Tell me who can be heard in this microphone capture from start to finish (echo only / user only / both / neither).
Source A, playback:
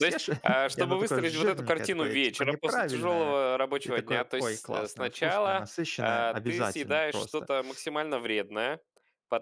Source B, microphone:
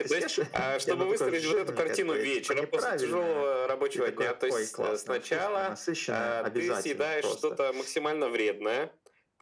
echo only